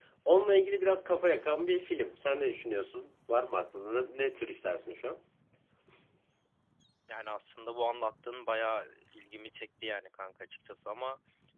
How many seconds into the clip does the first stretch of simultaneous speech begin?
none

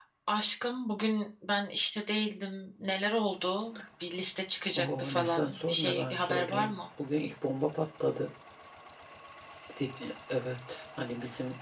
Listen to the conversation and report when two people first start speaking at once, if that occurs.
4.8 s

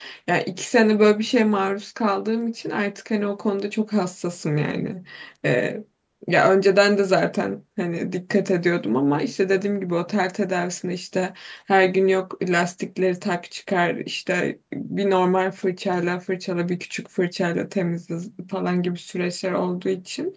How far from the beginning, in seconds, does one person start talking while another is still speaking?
none

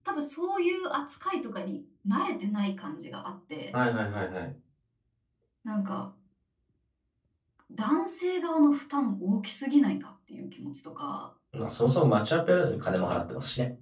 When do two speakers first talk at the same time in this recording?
none

